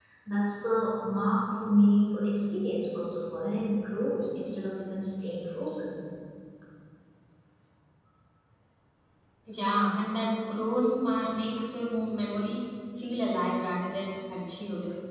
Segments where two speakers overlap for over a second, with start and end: none

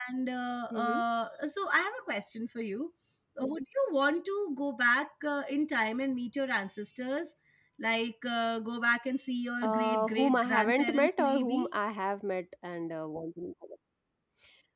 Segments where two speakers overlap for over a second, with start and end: 9.6-11.7

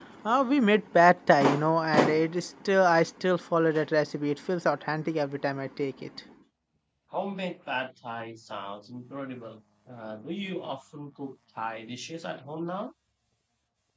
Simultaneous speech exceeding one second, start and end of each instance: none

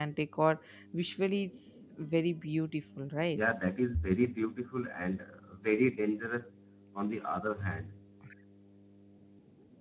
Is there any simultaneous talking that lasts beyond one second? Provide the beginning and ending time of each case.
none

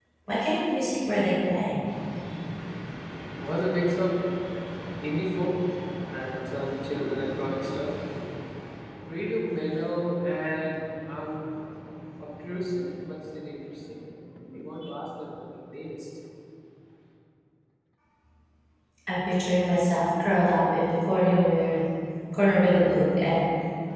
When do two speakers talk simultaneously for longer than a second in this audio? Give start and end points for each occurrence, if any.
none

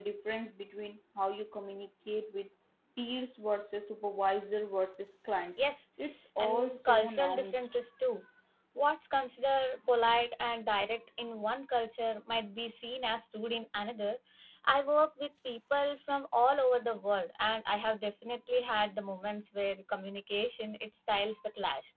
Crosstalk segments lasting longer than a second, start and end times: 6.4-7.8

